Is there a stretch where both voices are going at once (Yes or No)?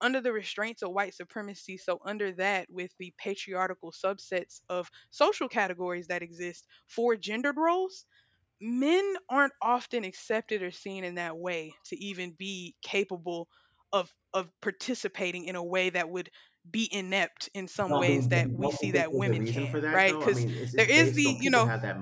Yes